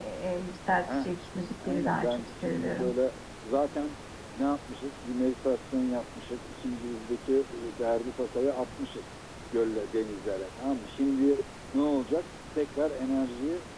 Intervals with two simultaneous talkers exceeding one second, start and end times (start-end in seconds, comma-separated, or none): 1.7-3.0